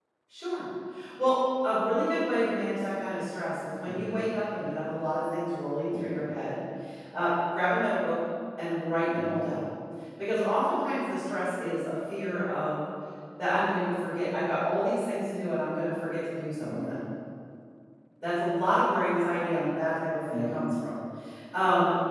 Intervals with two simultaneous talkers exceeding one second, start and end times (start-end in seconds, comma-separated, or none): none